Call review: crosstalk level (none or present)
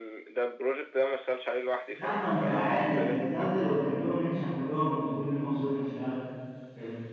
present